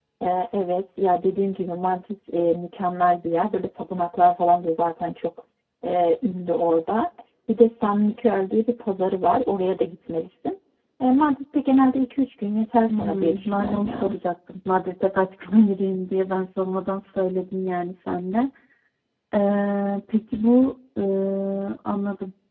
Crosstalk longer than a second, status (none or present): present